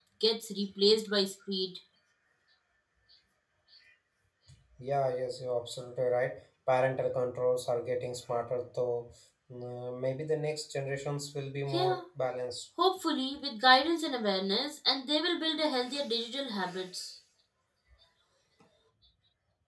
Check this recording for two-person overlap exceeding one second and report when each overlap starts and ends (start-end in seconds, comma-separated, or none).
none